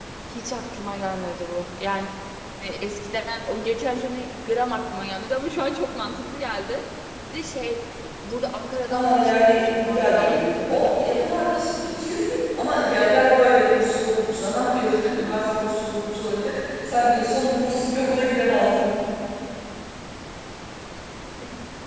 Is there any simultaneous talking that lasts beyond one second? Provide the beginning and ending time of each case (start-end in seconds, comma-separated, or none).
8.9-11.0